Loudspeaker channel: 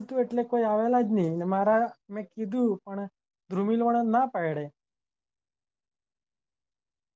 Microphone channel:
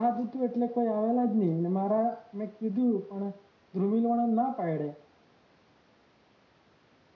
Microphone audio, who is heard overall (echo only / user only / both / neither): echo only